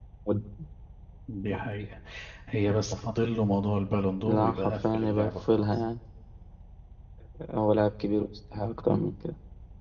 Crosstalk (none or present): present